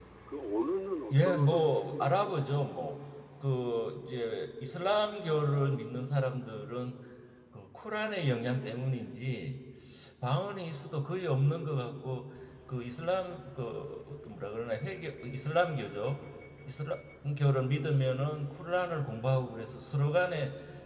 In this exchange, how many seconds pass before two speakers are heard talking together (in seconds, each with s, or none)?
1.1 s